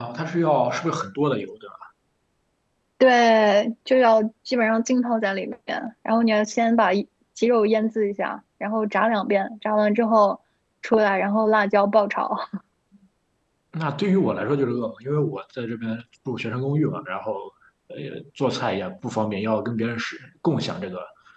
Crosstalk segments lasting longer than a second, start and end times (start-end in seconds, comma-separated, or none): none